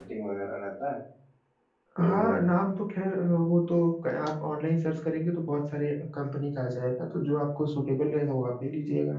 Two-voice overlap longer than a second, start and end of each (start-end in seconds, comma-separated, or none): none